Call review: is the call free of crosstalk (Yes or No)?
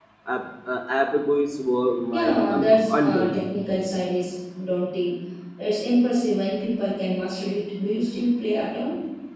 No